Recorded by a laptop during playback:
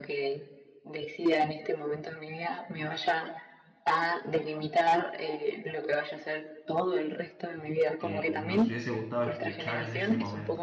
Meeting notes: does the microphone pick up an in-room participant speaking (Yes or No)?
Yes